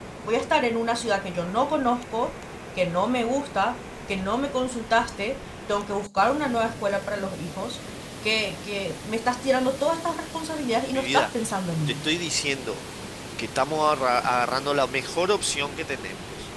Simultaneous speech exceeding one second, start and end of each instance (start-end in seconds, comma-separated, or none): none